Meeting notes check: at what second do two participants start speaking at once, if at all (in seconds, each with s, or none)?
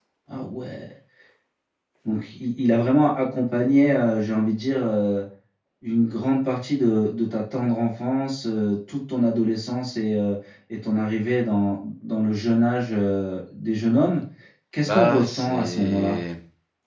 14.8 s